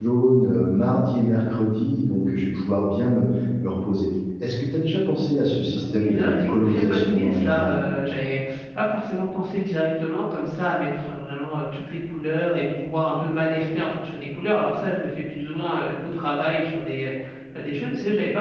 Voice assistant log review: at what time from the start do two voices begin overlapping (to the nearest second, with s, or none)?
6 s